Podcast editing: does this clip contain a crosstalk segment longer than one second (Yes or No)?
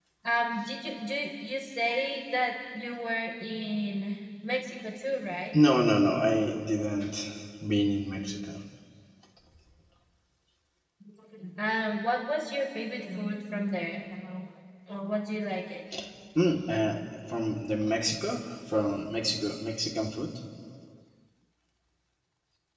No